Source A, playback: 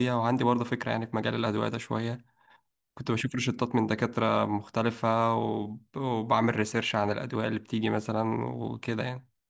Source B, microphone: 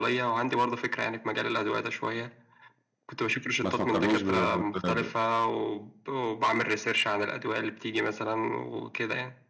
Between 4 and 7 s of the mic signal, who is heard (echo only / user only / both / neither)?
both